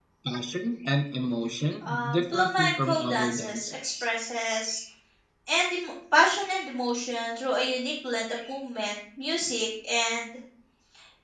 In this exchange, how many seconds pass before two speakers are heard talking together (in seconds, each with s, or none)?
1.8 s